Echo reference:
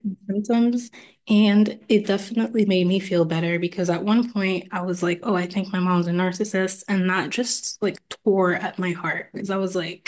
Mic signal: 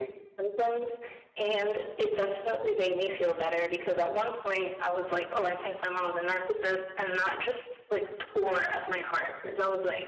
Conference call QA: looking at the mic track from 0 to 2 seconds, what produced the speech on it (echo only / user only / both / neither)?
echo only